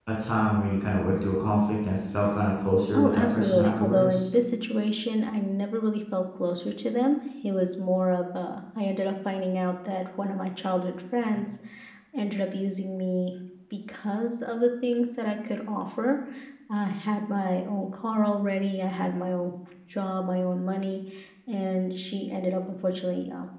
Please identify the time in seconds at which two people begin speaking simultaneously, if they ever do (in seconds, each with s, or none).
2.9 s